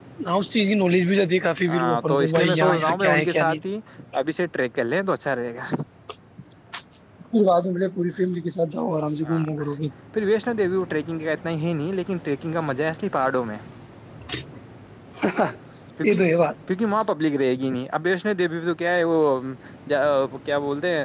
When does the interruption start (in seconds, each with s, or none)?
1.7 s